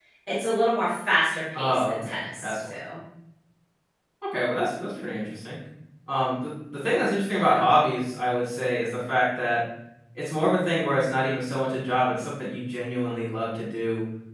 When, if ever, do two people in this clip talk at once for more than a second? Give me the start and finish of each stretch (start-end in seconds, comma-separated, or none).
1.6-2.8